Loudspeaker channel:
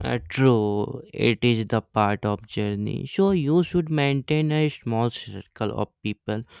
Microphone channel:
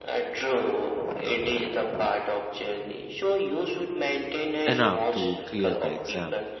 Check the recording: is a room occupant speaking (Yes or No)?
Yes